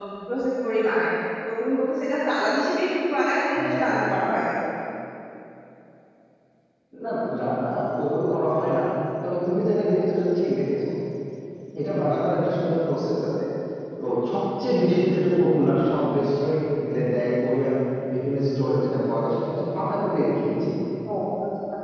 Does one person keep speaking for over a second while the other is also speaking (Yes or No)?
No